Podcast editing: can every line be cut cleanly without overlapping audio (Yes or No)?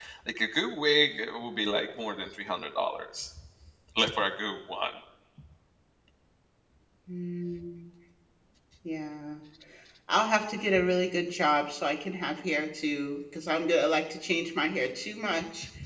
Yes